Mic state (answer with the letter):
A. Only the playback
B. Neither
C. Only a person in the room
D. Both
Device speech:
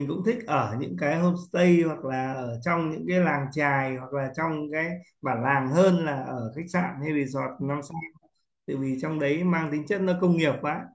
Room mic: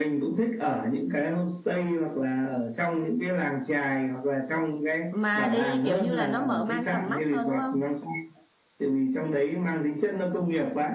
D